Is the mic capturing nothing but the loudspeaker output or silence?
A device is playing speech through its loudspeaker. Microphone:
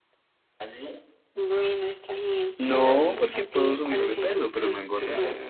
No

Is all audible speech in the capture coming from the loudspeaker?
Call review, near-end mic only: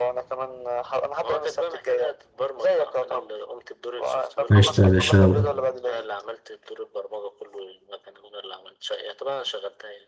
No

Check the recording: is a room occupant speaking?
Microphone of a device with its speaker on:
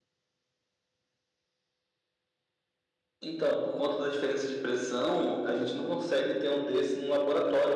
No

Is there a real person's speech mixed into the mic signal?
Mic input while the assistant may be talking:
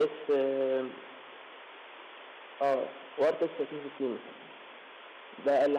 No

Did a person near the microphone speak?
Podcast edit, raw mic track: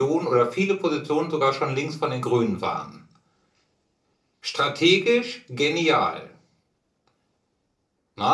Yes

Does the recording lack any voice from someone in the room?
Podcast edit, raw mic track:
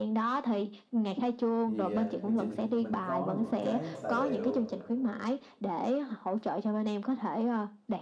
No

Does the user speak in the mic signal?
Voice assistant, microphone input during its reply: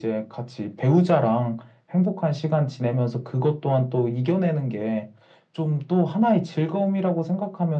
No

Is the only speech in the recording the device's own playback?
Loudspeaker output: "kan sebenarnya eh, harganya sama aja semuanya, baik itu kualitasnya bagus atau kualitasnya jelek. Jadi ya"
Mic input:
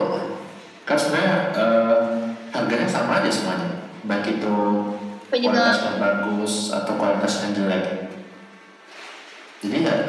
No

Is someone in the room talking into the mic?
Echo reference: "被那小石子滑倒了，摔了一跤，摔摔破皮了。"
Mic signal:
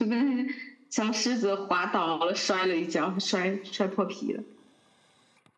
No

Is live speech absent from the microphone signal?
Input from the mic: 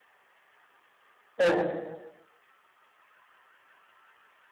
No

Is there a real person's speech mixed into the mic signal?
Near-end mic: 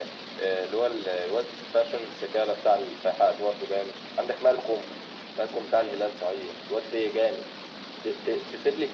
No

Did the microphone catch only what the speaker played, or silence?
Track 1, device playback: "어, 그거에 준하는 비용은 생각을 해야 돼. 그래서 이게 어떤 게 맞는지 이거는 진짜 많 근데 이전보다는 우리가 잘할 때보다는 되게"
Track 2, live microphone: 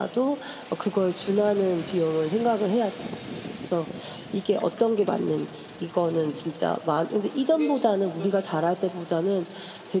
No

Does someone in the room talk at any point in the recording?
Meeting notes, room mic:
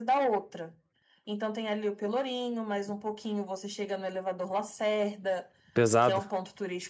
Yes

